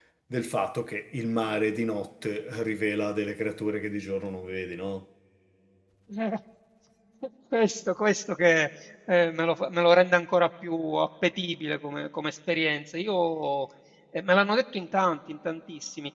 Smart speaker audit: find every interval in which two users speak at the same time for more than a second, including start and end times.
none

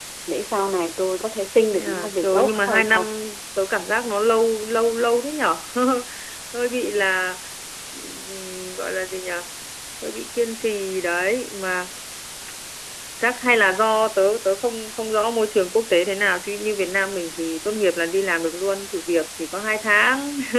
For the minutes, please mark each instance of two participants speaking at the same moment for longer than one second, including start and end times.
1.7-3.0

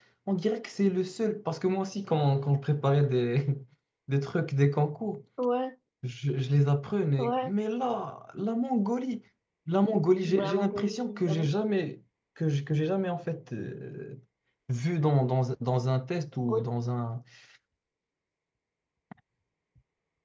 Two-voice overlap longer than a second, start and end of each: 10.2-11.5

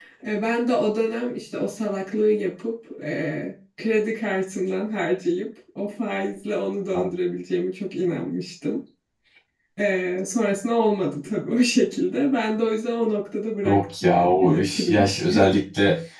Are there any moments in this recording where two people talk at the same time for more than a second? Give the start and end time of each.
13.7-15.6

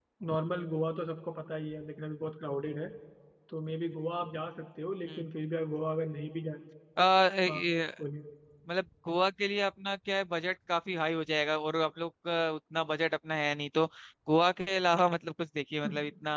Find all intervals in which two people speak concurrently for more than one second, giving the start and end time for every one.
none

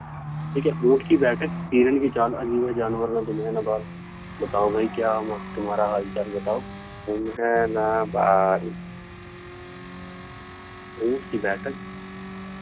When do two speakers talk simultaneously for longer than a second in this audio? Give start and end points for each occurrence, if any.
none

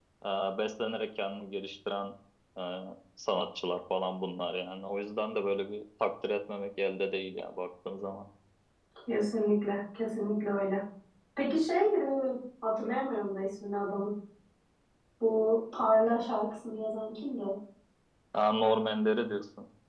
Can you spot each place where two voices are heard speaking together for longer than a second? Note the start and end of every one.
none

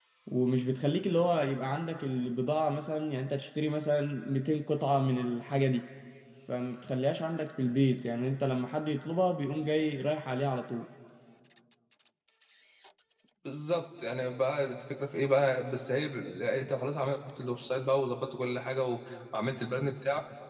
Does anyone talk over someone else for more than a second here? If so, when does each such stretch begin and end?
none

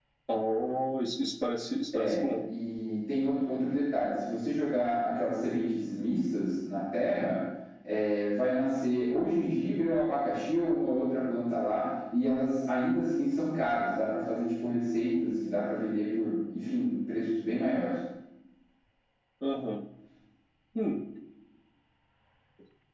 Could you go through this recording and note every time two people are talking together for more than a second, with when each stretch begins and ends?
none

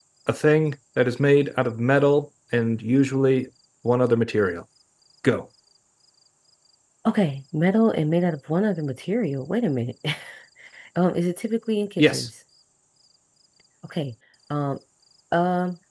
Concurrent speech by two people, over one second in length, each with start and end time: none

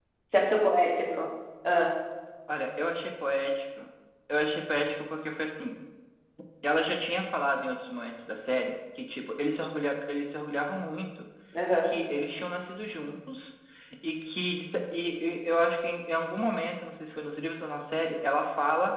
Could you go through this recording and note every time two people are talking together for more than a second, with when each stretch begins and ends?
none

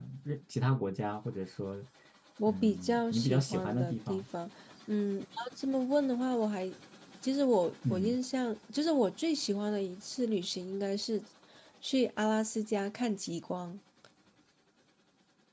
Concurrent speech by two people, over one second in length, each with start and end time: 2.5-4.2

